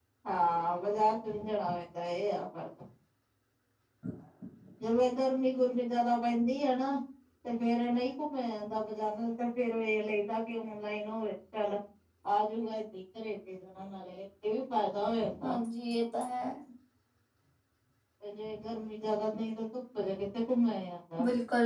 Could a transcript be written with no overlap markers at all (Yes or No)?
Yes